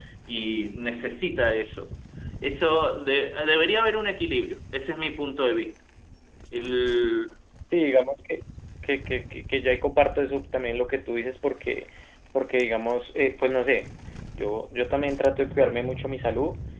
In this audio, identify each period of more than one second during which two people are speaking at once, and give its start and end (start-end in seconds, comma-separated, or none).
none